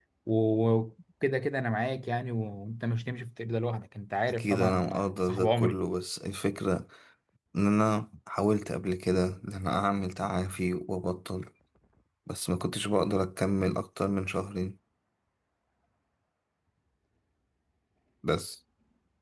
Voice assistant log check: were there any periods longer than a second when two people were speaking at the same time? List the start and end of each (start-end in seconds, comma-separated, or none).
4.3-5.8